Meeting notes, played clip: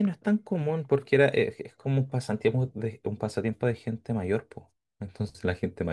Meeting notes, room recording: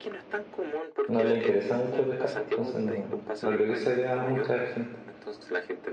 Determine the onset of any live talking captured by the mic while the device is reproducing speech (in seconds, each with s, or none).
1.0 s